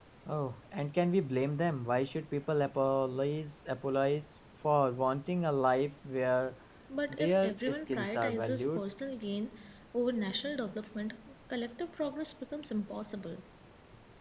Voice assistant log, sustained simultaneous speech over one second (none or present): present